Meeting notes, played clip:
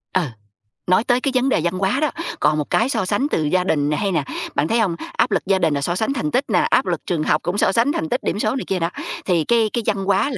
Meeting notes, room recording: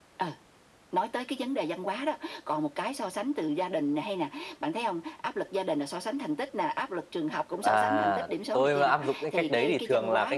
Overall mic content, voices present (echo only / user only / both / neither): both